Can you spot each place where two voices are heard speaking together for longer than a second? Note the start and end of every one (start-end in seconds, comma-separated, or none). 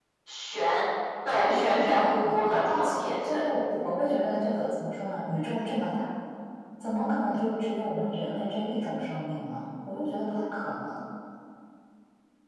1.3-3.5